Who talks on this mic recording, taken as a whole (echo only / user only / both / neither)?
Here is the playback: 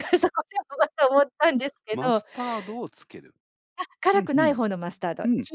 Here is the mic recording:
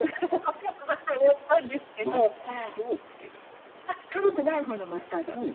echo only